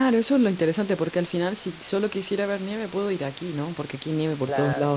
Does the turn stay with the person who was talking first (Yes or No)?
Yes